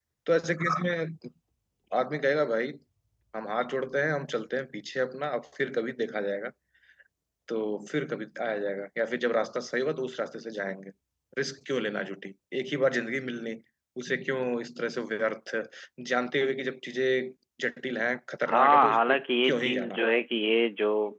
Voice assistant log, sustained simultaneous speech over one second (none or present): present